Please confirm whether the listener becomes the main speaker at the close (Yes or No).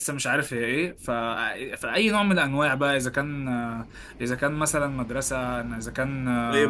Yes